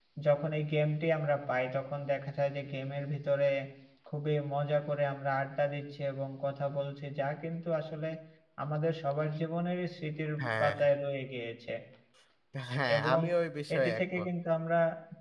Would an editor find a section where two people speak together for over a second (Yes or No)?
No